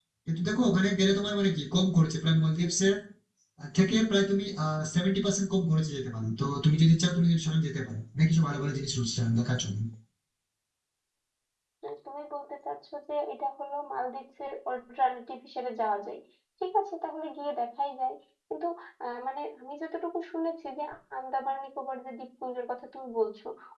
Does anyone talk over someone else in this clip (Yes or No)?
No